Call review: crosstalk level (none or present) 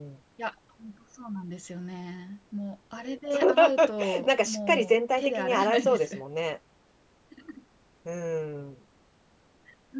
present